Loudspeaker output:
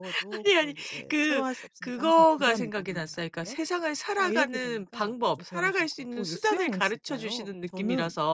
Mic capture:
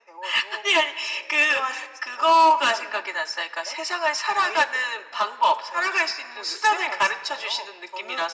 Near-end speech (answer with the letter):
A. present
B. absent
B